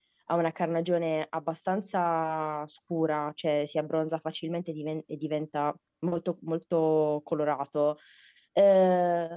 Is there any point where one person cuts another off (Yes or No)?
No